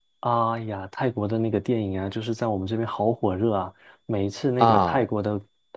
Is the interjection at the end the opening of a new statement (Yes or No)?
No